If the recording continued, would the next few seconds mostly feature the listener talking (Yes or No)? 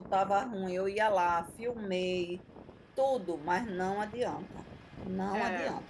No